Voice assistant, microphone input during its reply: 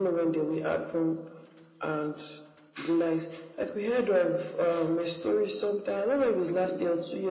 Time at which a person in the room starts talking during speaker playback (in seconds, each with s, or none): none